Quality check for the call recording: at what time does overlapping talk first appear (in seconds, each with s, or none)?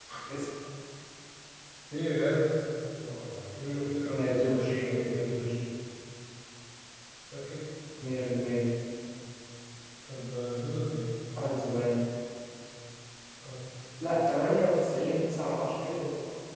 4.1 s